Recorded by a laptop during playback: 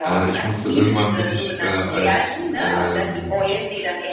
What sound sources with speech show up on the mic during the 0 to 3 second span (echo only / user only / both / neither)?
both